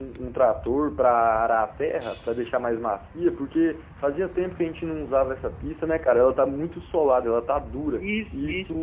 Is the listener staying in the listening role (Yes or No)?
No